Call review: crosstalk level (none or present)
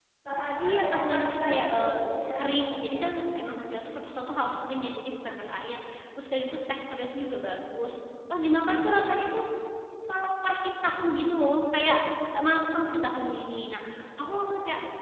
present